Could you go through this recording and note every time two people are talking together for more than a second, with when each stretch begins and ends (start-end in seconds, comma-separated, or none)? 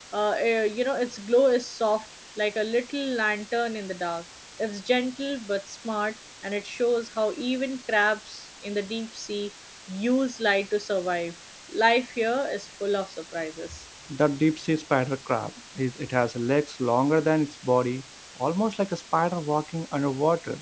none